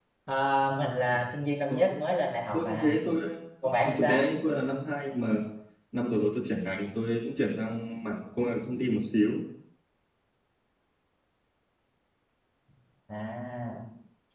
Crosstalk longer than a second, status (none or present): none